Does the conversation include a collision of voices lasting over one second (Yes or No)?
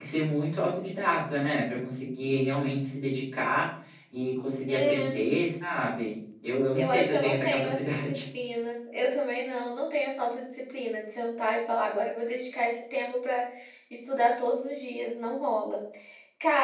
Yes